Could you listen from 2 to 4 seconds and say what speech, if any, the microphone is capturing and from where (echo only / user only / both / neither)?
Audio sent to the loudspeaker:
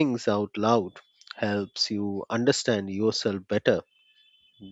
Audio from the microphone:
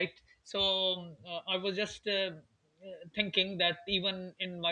user only